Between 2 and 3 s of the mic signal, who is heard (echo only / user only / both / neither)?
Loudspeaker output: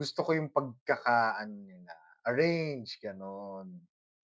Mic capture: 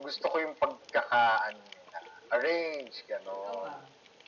echo only